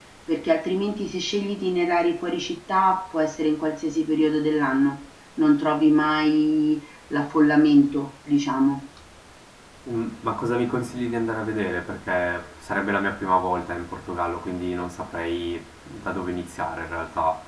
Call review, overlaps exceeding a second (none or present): none